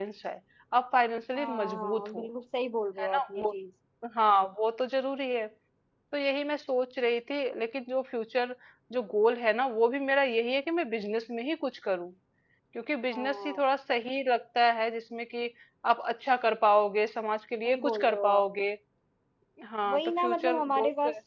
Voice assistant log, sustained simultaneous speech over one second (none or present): present